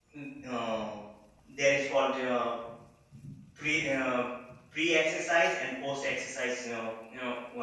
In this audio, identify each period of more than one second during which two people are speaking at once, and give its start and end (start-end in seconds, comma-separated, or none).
none